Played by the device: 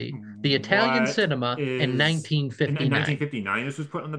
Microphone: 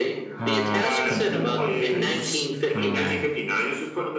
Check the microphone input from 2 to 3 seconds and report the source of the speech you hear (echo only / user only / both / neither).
both